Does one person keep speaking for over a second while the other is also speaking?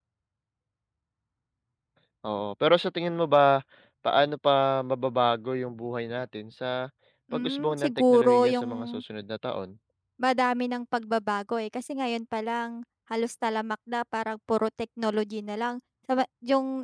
Yes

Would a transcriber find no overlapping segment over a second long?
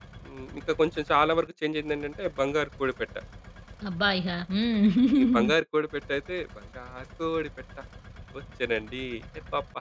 Yes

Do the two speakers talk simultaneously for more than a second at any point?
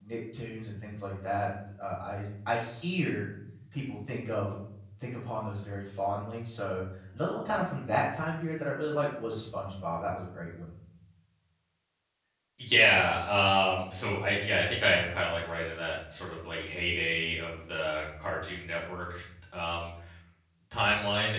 No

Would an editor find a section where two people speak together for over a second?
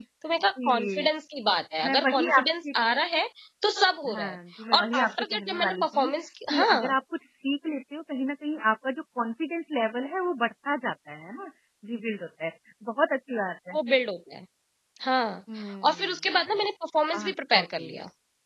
Yes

